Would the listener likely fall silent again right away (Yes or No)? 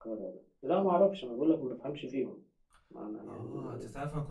No